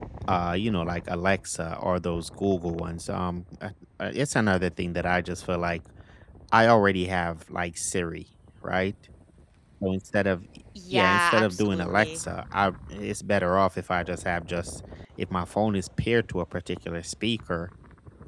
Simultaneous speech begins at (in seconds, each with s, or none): 10.9 s